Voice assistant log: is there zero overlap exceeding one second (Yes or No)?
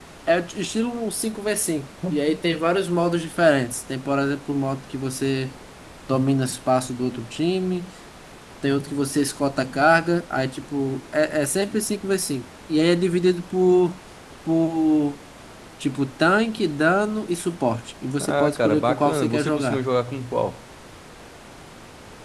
No